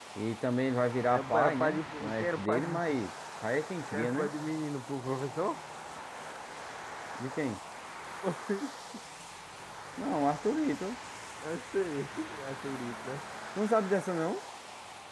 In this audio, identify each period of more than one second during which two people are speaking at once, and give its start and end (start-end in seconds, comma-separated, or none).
1.1-2.8